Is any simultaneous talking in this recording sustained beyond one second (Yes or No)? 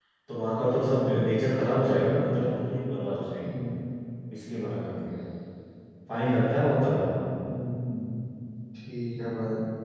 No